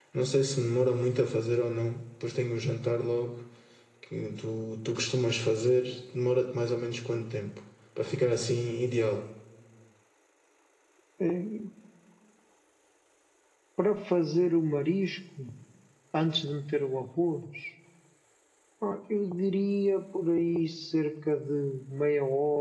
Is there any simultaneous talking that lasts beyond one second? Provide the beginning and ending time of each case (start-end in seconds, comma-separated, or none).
none